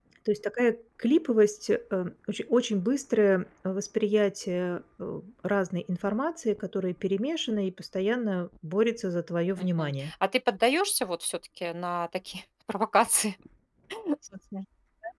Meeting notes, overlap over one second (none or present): none